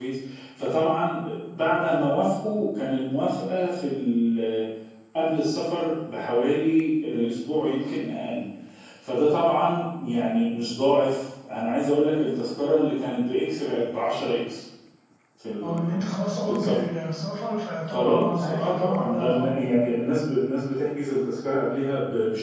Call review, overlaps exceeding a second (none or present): present